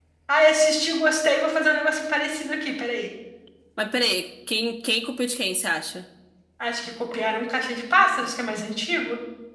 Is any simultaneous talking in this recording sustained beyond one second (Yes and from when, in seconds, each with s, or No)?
No